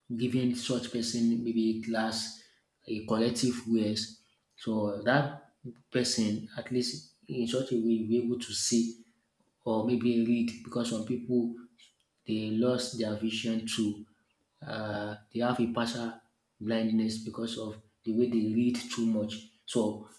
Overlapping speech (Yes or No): No